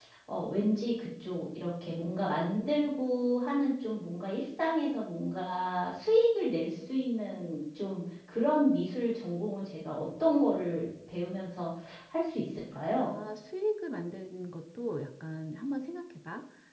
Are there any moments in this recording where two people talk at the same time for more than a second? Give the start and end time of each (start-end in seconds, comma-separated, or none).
none